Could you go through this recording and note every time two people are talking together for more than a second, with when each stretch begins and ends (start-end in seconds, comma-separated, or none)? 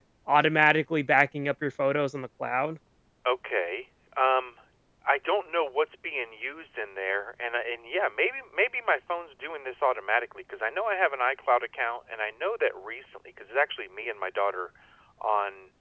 none